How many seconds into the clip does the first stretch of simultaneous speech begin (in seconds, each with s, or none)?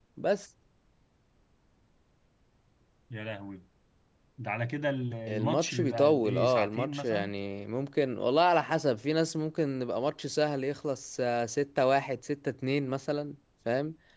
5.3 s